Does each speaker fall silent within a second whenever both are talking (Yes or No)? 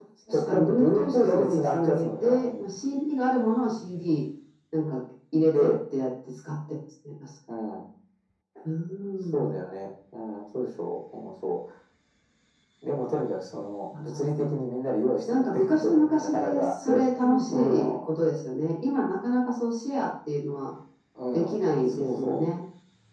No